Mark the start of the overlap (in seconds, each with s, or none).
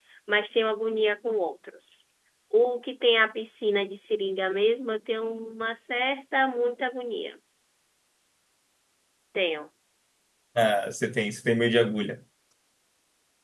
none